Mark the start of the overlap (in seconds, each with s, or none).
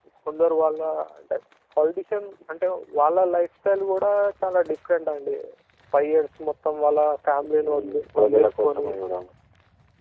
7.6 s